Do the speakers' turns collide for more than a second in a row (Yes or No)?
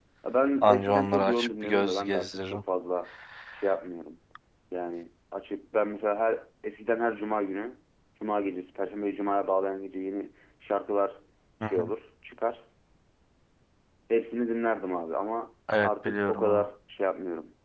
Yes